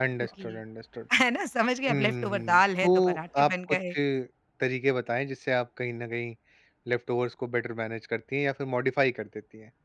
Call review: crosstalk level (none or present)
present